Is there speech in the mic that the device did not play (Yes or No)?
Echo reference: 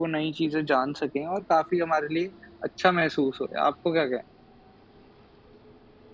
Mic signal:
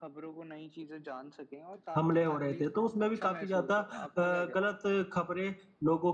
Yes